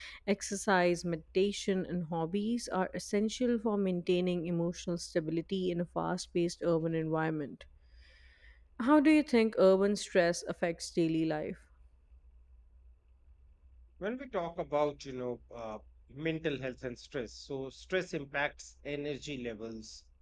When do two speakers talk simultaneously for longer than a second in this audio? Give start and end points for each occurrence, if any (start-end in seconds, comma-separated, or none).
none